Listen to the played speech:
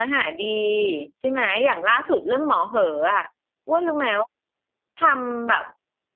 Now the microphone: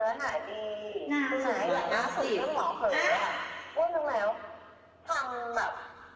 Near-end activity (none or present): present